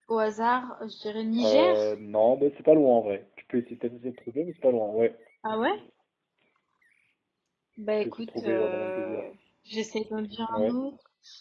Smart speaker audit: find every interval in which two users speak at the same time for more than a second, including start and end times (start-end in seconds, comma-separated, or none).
8.0-9.2